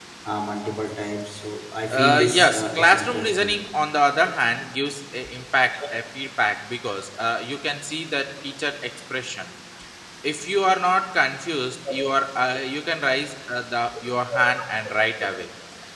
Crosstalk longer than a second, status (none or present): present